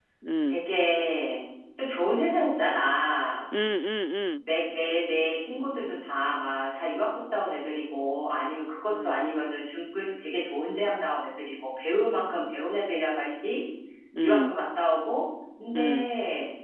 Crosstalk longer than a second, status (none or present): none